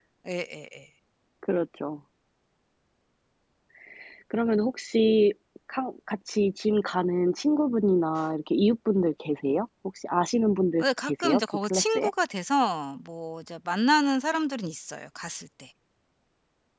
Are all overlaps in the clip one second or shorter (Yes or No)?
No